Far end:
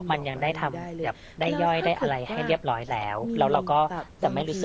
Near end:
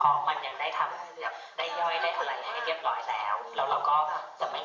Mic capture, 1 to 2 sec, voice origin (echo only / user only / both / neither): echo only